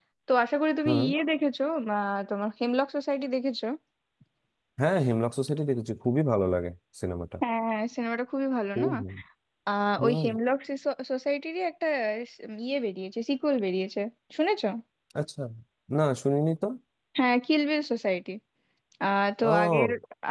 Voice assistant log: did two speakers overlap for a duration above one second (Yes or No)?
No